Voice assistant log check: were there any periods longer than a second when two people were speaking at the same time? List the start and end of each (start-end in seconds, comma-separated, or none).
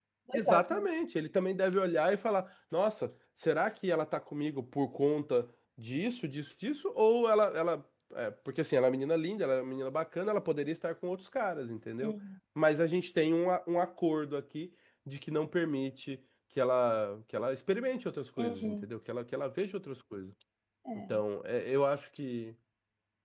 none